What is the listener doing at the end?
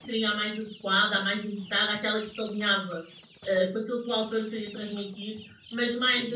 listening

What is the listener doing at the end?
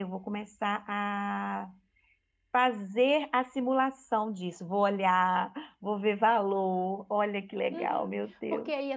taking over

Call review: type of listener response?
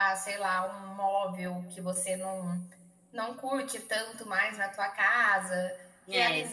listening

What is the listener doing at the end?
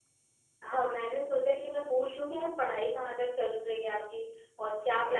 listening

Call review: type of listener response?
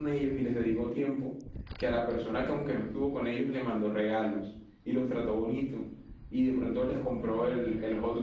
listening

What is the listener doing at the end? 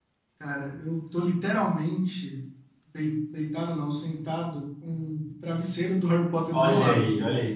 taking over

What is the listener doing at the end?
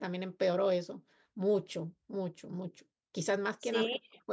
listening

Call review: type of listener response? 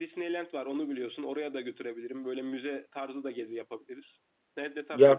taking over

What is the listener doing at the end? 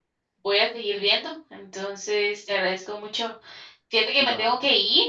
listening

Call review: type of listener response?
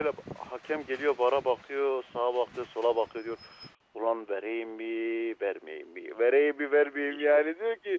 listening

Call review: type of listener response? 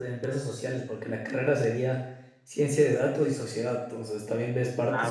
listening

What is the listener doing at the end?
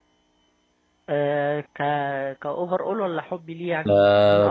taking over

